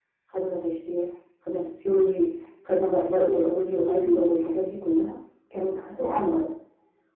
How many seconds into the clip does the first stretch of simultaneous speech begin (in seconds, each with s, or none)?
3.0 s